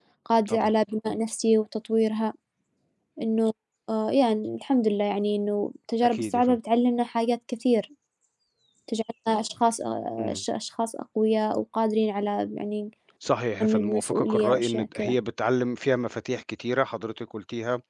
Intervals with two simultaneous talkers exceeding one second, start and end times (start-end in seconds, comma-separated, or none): 13.6-15.2